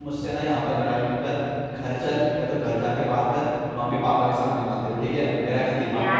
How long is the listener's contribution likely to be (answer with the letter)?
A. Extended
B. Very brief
A